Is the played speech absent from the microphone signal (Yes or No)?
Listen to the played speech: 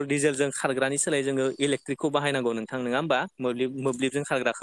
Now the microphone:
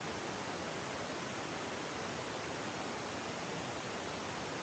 Yes